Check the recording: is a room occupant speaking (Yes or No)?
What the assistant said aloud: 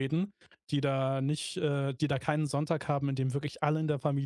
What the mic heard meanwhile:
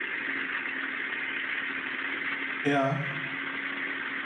Yes